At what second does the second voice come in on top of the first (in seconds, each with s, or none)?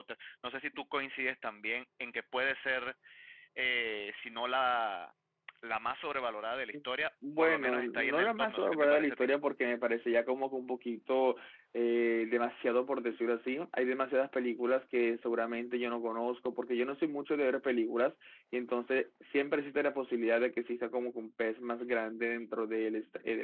7.4 s